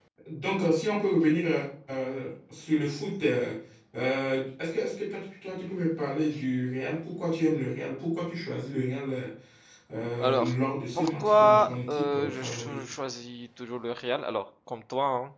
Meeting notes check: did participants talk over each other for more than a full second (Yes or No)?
Yes